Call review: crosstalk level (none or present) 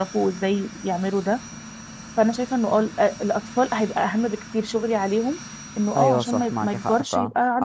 present